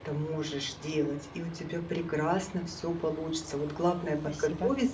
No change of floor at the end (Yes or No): Yes